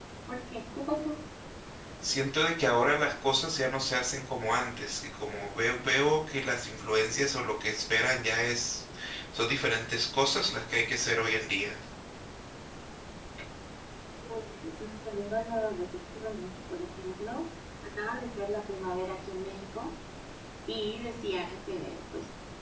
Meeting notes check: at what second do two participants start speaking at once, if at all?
none

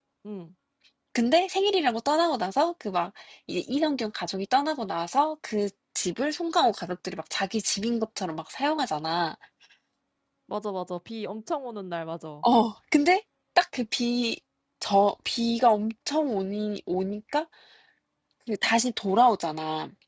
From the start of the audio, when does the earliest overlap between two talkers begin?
none

